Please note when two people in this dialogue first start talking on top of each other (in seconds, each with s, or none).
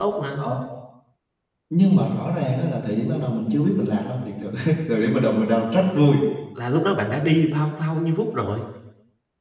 none